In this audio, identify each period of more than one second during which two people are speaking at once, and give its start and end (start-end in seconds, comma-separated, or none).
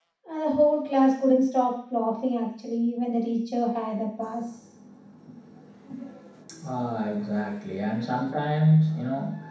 none